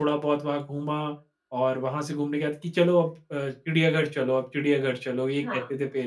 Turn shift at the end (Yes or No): Yes